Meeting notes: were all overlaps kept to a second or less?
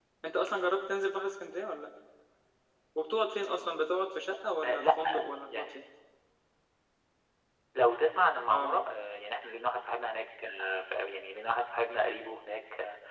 Yes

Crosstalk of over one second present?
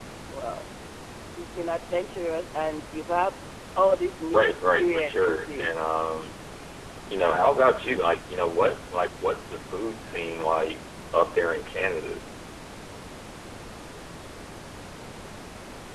Yes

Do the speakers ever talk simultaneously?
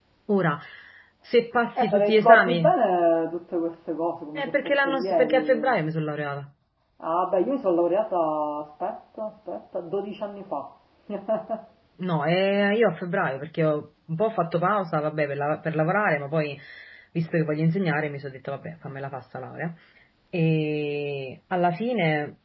Yes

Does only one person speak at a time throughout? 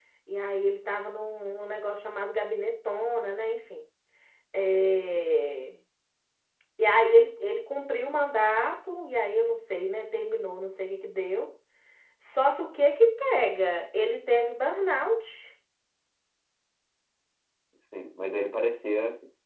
Yes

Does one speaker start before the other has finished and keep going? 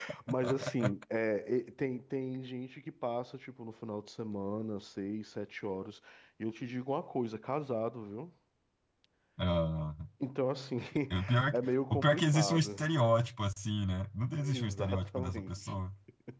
Yes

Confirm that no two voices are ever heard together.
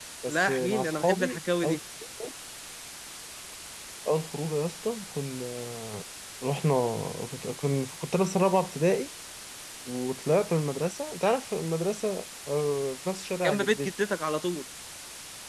No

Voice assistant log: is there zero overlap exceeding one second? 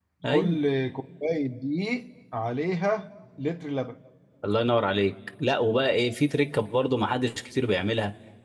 Yes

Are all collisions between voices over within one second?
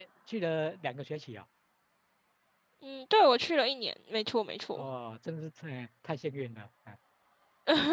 Yes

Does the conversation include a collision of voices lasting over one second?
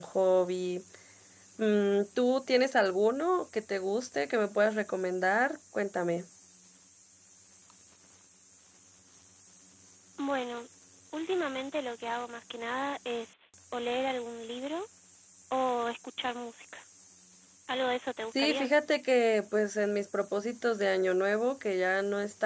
No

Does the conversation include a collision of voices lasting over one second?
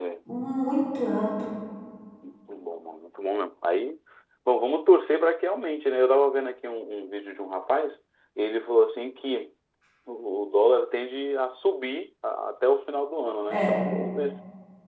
No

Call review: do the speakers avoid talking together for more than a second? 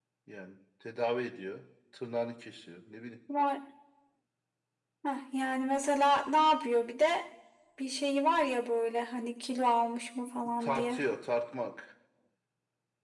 Yes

